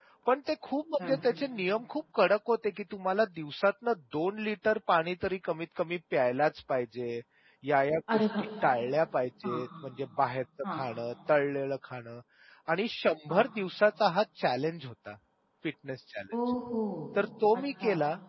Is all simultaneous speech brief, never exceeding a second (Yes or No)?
Yes